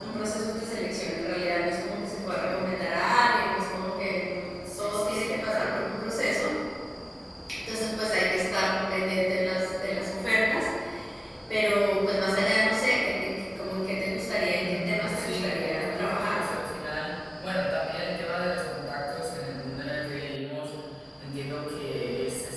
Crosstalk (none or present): present